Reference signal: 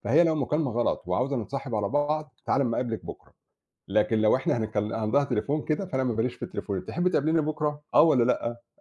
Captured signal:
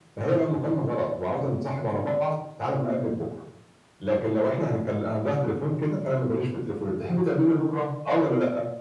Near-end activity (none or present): none